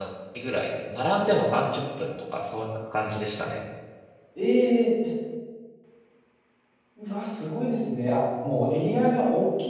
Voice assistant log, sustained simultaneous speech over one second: none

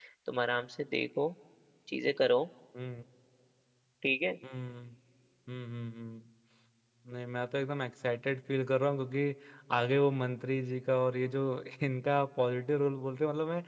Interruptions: none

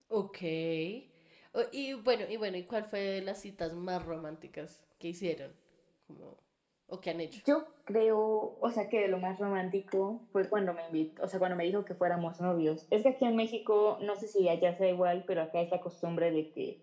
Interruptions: none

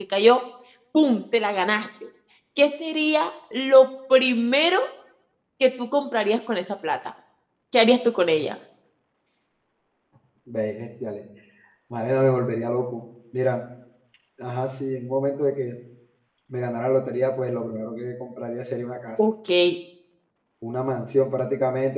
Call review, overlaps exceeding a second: none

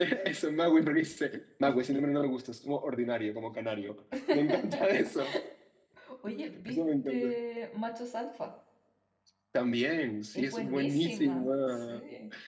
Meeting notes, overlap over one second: present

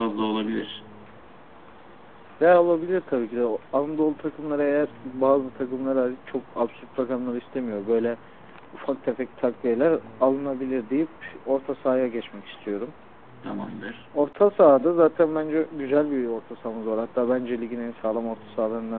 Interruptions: none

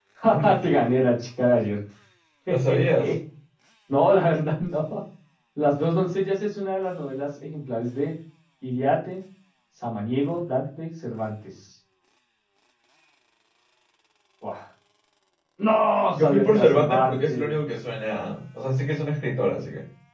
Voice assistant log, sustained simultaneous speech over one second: present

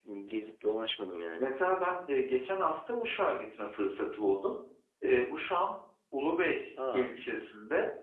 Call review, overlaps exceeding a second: none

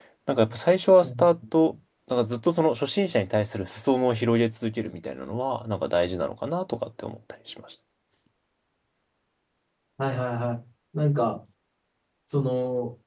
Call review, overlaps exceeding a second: none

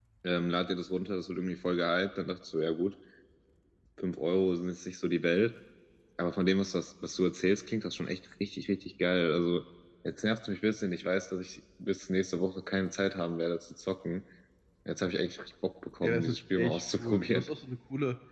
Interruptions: present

